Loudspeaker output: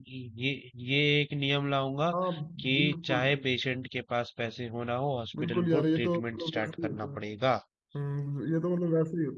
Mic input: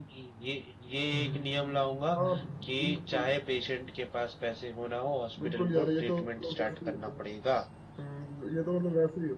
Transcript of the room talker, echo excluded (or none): हम्म हम्म